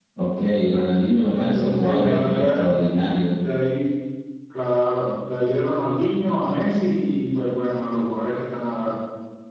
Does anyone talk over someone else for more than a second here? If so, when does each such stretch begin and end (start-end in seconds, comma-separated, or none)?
1.3-2.6